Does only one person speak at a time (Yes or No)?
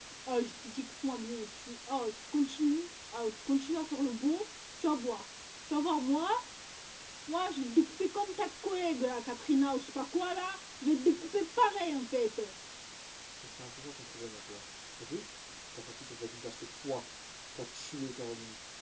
Yes